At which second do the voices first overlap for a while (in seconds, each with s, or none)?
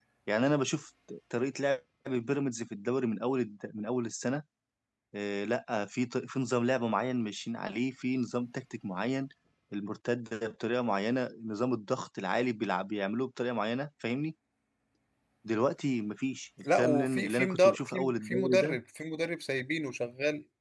16.6 s